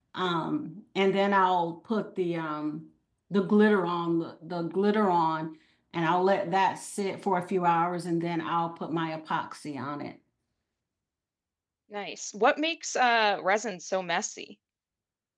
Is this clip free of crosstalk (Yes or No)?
Yes